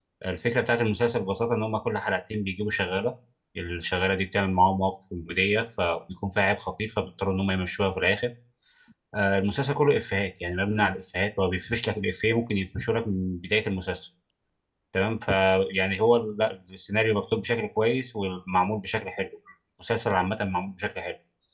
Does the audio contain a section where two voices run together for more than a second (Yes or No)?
No